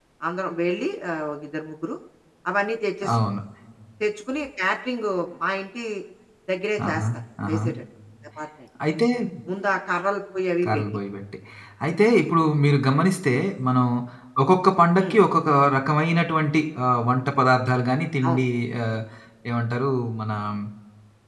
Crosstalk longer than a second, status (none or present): none